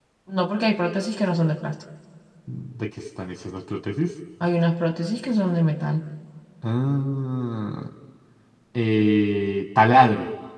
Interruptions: none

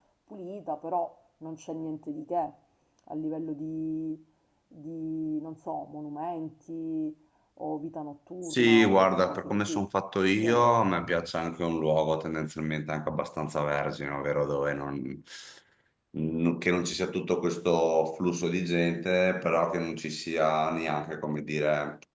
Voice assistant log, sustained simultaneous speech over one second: present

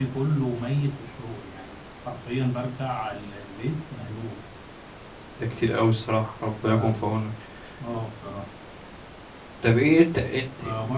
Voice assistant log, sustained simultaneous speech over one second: none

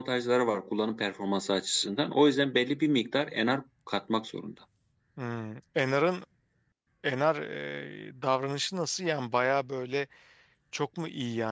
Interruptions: none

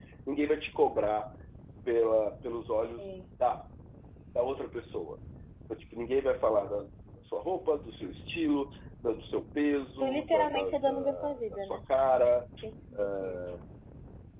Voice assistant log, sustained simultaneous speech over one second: present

